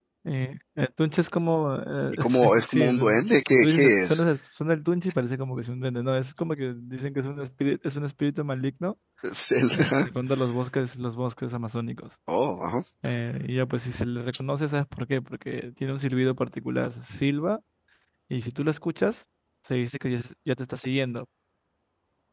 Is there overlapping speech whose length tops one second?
Yes, from 2.1 s

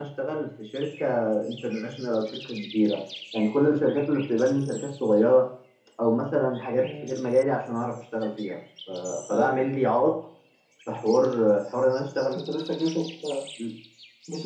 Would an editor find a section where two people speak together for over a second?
No

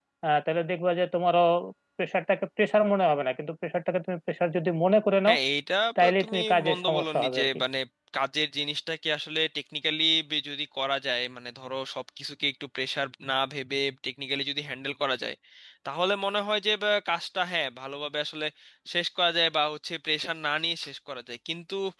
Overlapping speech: Yes, from 6.0 s

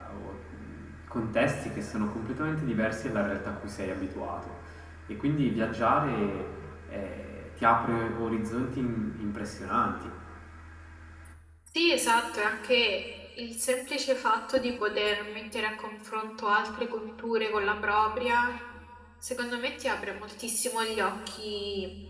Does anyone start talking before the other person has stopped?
No

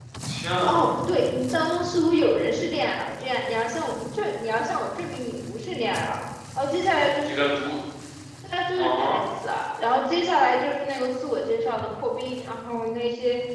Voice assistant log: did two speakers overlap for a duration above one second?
No

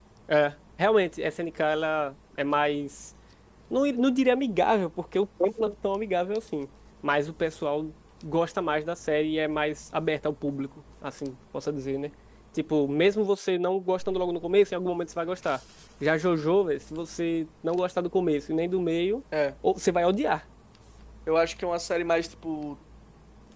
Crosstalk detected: No

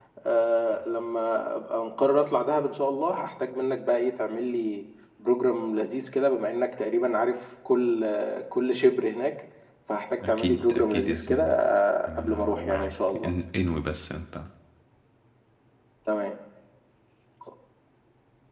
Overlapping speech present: Yes, from 10.3 s

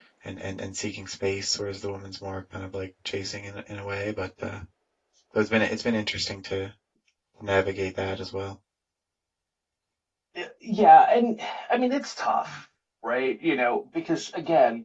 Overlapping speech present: No

